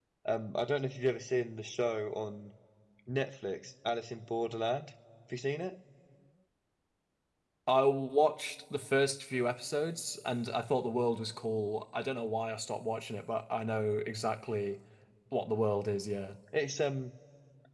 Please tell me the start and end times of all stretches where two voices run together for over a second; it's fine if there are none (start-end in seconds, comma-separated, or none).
none